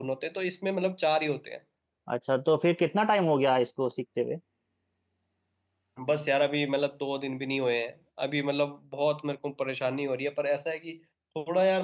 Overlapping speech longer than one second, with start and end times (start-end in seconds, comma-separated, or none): none